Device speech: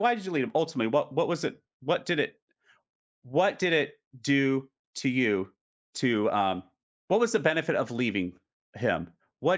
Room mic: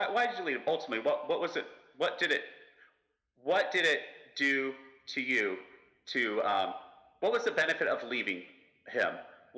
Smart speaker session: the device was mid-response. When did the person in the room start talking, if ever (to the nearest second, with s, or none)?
none